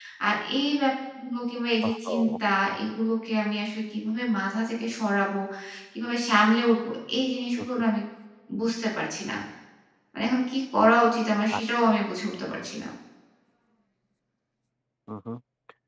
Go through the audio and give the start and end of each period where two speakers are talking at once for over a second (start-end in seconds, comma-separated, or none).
none